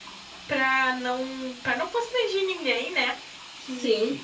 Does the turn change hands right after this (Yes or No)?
No